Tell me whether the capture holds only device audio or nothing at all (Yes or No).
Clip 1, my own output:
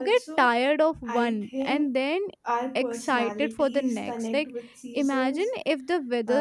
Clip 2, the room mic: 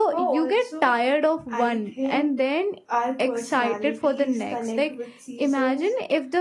Yes